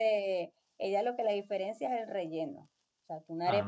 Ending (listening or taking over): listening